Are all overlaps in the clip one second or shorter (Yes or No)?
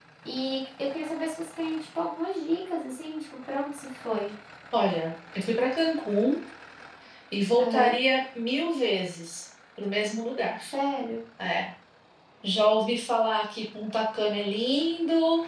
Yes